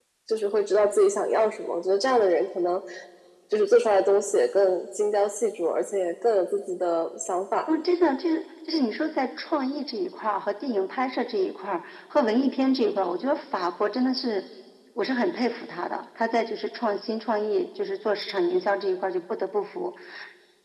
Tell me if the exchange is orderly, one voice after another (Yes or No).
Yes